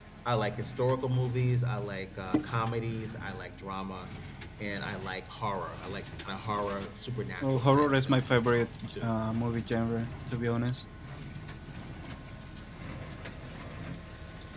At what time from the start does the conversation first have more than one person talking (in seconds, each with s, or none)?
7.4 s